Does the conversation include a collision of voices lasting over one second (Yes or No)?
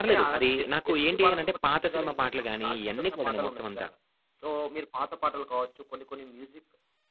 Yes